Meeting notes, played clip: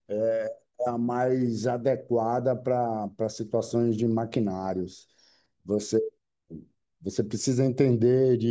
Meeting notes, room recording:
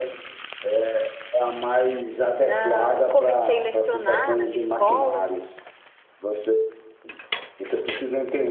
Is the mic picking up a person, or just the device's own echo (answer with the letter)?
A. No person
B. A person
B